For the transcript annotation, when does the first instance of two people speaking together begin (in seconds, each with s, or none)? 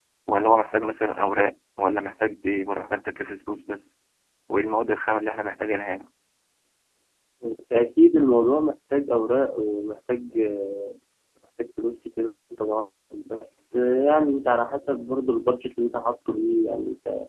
none